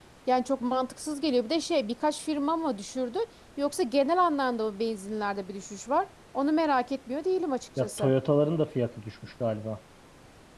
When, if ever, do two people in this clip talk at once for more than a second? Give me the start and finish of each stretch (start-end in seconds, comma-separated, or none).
none